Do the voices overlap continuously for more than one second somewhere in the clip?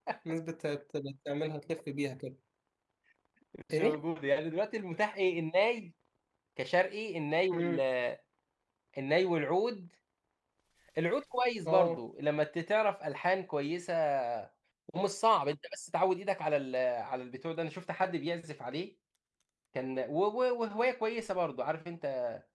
No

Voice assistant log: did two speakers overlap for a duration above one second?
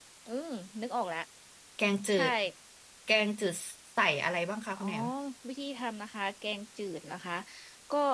No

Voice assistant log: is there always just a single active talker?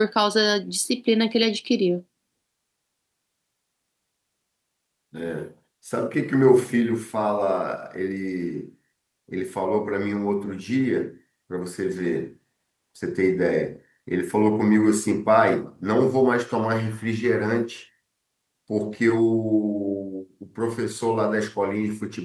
Yes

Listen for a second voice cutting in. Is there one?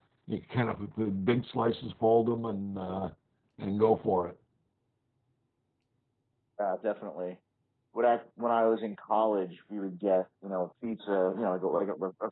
No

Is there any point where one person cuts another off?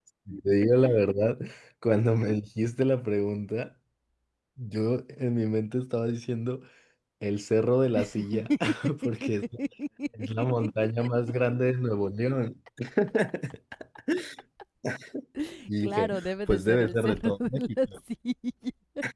Yes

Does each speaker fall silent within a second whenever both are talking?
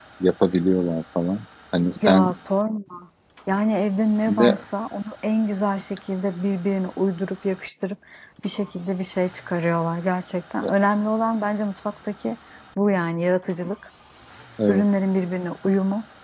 Yes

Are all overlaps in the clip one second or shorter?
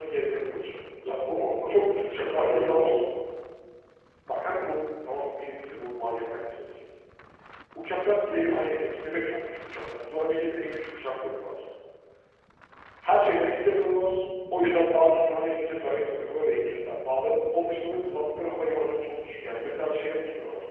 No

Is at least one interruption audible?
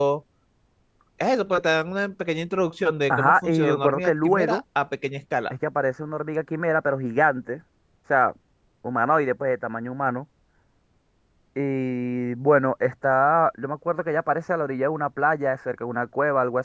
Yes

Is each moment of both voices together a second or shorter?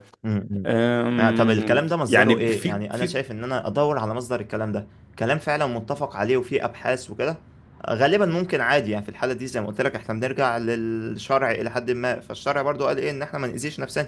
No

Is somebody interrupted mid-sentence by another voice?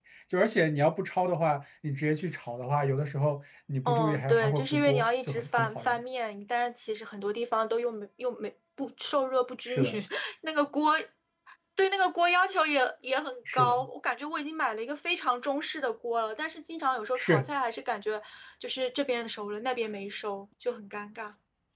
Yes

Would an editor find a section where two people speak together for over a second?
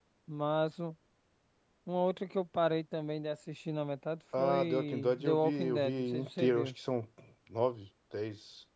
Yes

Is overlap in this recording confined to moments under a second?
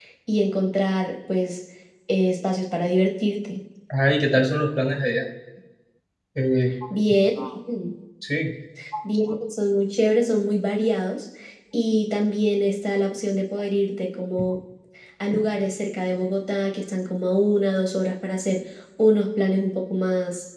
Yes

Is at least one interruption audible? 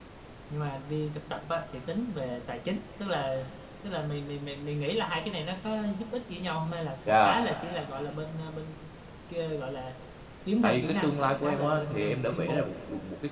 Yes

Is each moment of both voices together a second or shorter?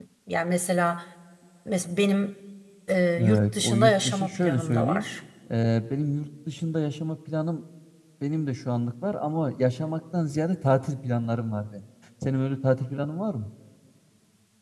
No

